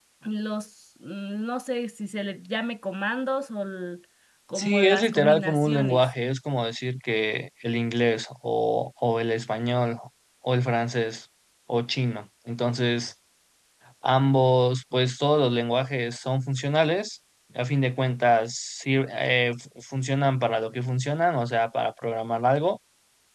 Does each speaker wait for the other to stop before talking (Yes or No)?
No